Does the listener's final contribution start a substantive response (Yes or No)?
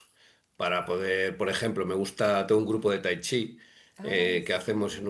No